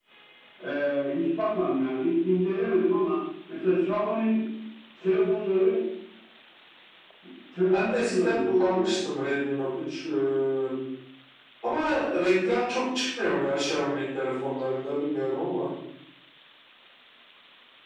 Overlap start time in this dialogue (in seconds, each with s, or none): 7.7 s